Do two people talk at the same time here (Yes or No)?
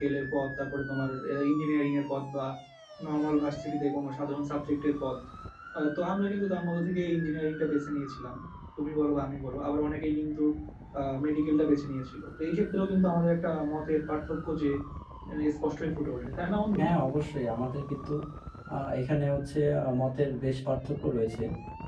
No